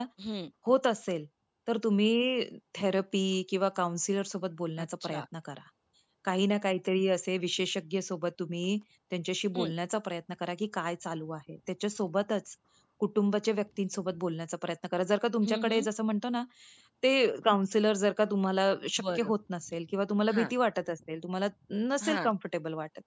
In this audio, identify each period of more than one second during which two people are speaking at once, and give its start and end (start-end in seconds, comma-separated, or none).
none